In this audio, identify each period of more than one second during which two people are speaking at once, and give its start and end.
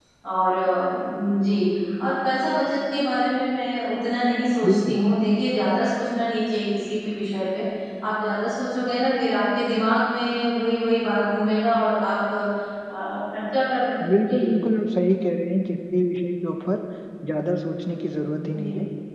none

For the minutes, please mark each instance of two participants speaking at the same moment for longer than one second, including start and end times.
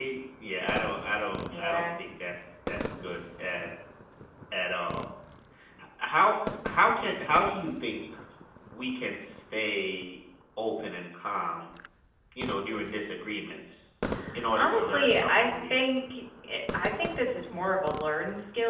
14.6-15.8

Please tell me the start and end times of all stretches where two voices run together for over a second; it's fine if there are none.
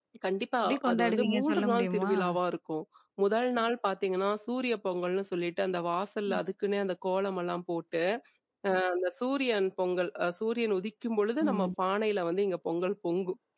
0.6-2.1

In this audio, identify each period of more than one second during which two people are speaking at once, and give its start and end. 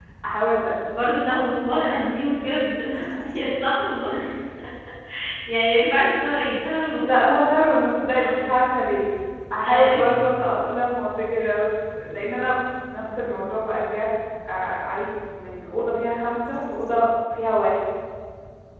none

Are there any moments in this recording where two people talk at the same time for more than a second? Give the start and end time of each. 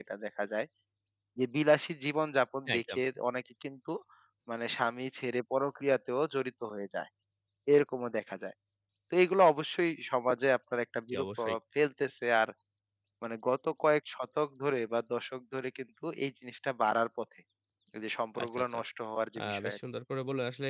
none

